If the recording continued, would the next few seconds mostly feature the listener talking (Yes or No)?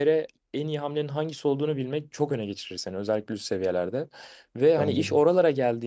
No